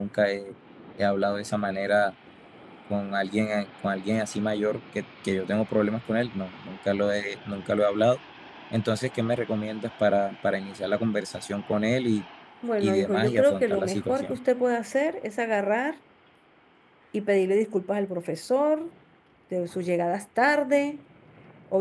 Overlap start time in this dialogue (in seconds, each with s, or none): 12.8 s